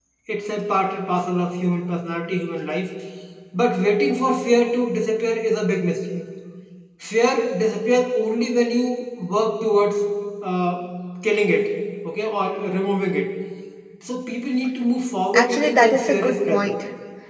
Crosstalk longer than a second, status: present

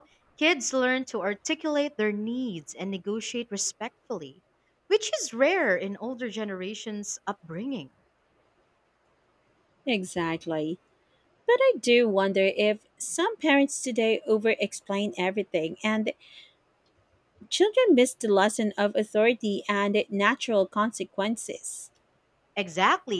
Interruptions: none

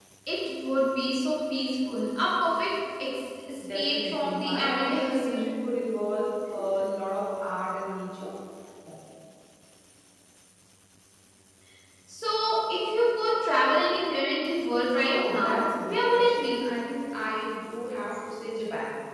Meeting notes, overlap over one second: present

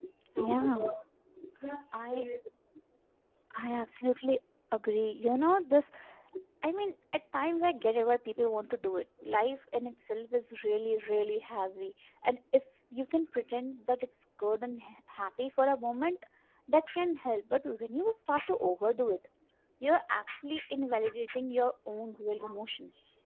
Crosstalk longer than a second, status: none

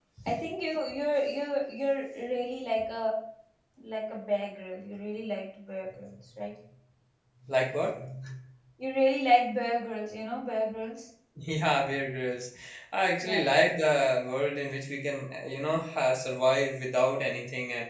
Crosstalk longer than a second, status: none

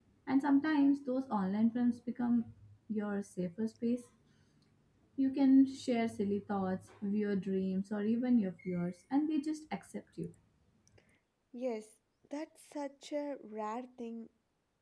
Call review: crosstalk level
none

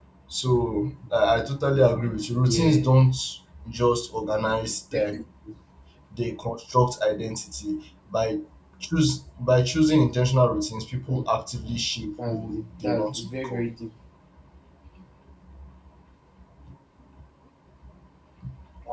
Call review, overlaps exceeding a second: present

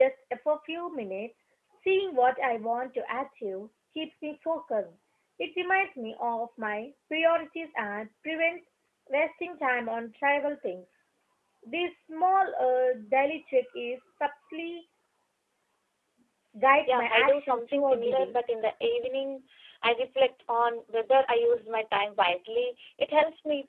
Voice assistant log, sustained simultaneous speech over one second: present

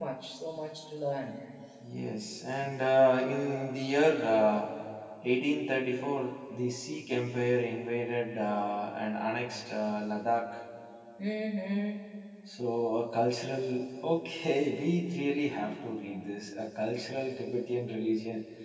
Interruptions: none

